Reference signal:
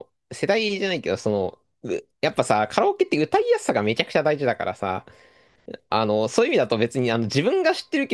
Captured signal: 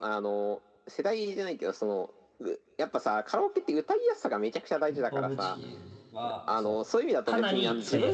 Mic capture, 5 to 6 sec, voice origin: both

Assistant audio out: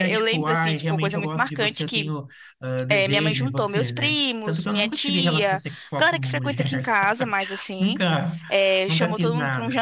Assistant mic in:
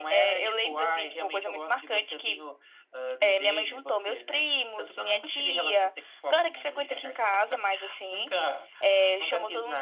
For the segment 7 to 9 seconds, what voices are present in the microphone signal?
echo only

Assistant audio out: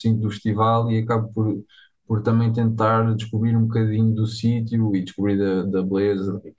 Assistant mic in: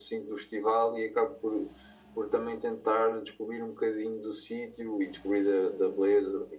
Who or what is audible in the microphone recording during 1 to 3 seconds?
echo only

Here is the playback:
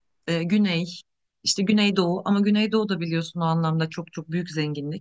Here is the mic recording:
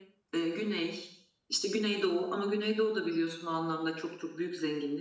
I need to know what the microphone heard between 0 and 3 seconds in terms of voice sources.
echo only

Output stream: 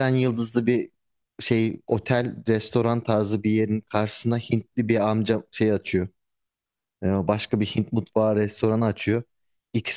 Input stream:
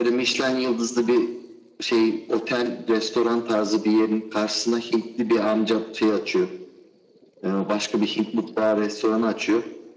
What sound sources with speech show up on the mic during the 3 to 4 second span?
echo only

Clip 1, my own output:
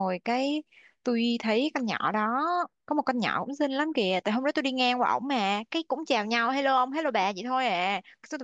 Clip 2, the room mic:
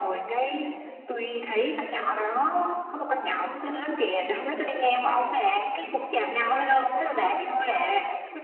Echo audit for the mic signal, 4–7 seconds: echo only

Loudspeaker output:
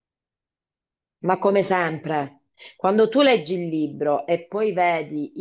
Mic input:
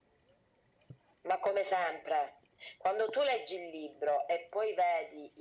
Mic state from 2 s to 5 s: echo only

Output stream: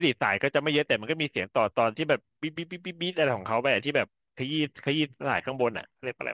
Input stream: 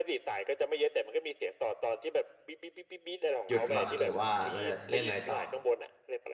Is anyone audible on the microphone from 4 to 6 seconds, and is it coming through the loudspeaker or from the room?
both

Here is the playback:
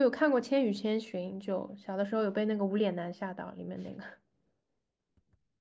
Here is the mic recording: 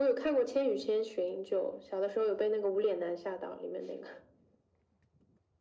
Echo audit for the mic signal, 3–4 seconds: echo only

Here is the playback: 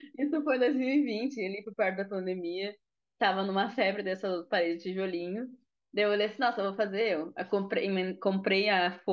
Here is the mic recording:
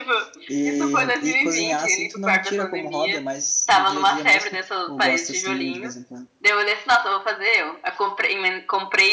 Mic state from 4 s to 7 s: both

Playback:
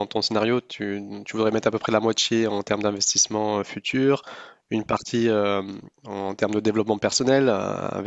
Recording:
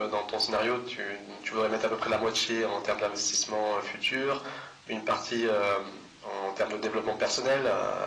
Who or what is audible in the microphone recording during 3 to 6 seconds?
echo only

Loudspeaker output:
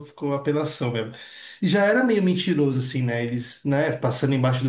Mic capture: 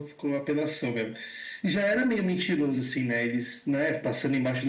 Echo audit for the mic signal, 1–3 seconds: echo only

